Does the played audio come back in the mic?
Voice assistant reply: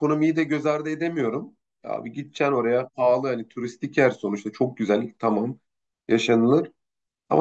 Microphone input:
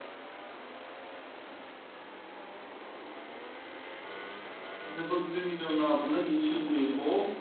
No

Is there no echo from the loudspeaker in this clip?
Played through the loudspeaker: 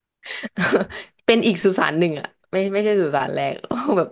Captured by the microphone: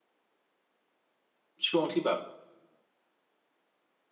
Yes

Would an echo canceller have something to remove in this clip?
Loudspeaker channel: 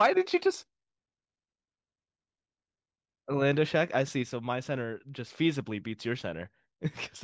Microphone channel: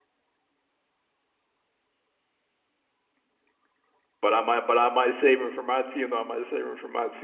No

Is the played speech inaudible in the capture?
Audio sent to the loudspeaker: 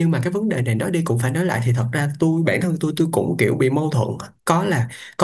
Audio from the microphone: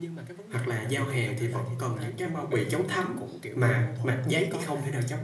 No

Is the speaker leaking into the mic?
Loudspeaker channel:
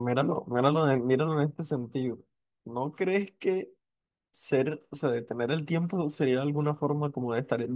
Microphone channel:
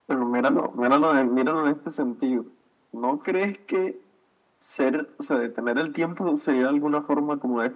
Yes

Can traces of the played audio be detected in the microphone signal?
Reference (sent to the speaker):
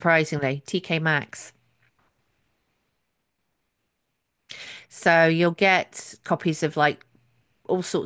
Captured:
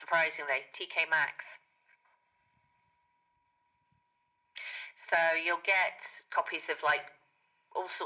Yes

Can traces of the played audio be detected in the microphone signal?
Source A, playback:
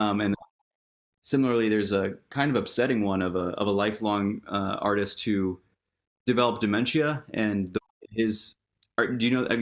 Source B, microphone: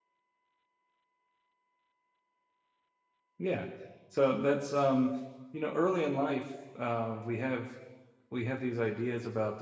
No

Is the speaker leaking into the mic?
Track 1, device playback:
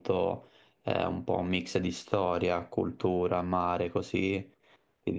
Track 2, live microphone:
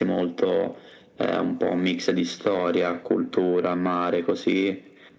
Yes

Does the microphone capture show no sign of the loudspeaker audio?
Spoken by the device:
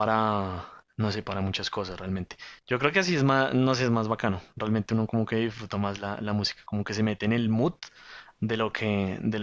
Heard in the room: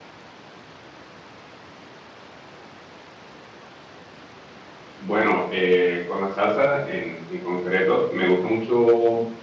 Yes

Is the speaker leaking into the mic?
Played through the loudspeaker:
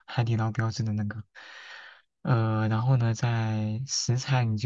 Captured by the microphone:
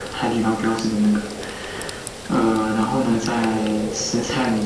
Yes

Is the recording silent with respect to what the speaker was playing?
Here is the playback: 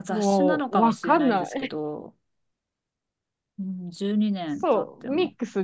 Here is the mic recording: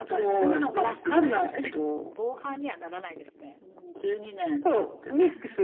No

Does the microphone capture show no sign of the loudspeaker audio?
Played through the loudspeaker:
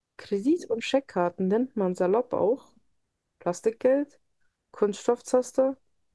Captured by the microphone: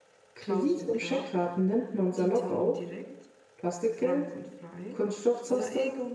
No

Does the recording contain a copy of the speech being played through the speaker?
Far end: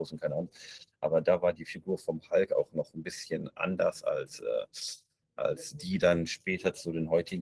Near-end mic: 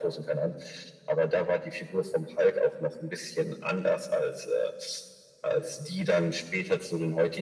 Yes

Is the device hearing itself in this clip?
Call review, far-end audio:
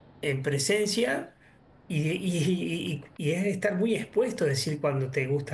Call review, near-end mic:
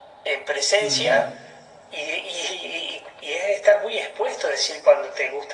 Yes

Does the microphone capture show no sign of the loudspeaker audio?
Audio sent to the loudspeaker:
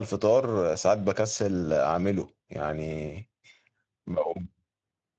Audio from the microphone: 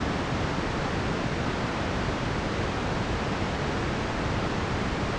Yes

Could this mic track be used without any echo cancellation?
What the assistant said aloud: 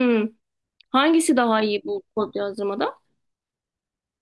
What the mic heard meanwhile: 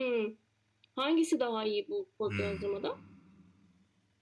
No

